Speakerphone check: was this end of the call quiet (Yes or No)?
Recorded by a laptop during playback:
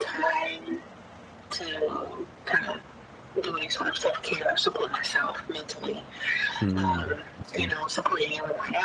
No